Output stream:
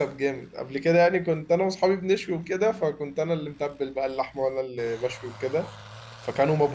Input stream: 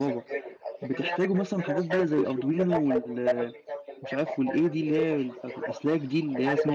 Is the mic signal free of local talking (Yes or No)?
No